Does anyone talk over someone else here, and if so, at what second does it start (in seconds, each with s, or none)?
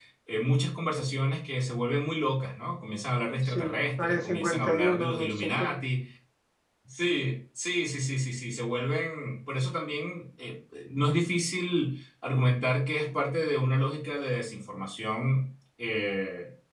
3.4 s